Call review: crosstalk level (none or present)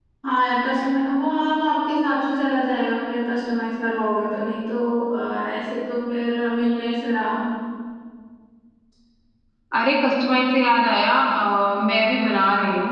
none